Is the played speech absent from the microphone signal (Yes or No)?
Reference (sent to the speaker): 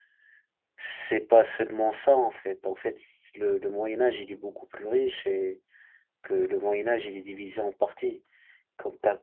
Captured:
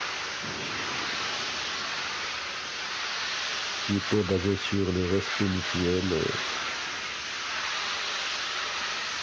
Yes